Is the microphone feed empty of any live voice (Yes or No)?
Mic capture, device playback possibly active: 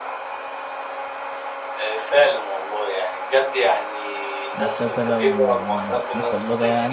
No